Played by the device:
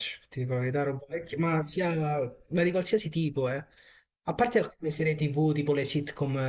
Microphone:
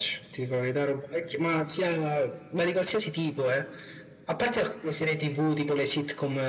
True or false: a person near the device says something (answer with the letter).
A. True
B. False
B